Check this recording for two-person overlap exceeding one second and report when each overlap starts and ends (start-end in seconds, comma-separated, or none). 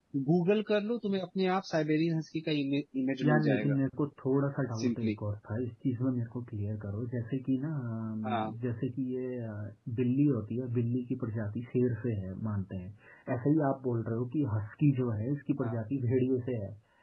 none